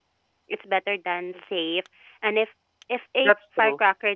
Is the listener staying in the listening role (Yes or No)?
Yes